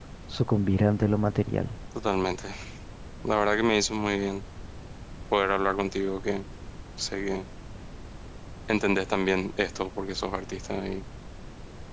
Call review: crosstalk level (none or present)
none